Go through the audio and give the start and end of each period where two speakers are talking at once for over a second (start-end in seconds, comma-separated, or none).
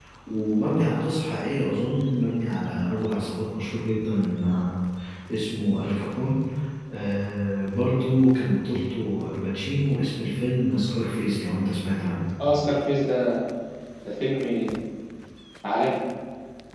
none